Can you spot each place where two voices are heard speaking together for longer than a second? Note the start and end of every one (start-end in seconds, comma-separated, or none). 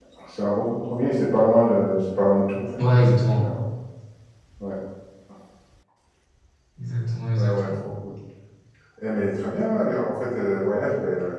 none